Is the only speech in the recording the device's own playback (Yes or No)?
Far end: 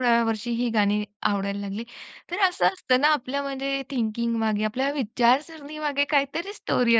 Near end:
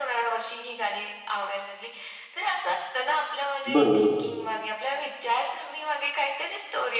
No